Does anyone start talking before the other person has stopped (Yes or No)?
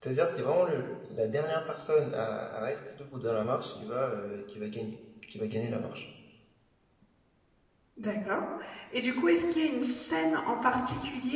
No